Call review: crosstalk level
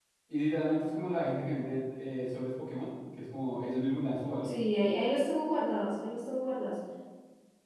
none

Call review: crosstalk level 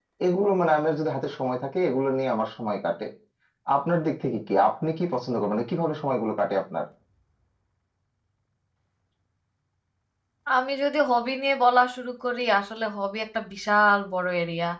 none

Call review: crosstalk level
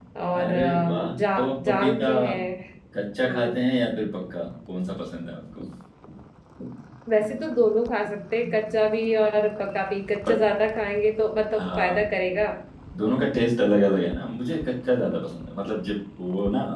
present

